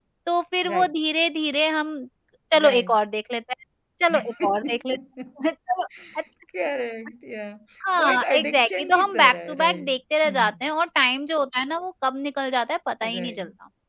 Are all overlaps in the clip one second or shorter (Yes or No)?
No